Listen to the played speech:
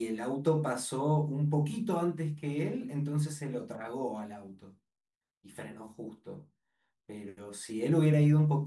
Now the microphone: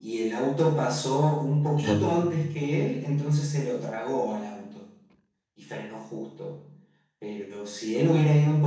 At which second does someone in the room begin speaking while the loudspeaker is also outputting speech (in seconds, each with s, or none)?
1.8 s